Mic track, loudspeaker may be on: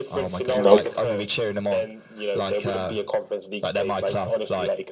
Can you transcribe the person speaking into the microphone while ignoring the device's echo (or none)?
Nope.